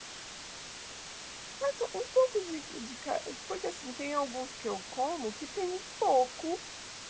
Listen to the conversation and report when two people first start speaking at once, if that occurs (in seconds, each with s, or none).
none